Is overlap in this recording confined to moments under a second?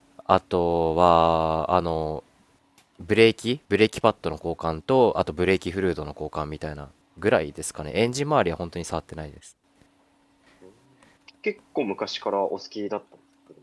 Yes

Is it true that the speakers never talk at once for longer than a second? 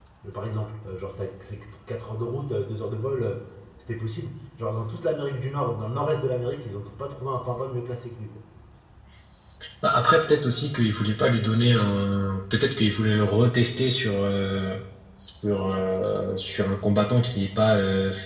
Yes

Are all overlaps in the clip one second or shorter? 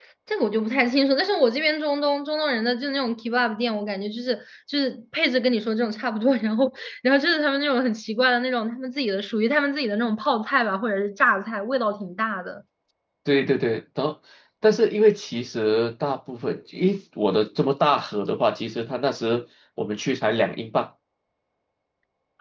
Yes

